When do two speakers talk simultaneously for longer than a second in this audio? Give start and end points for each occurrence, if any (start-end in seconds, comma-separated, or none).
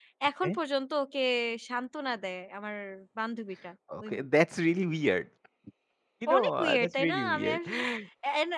6.4-7.6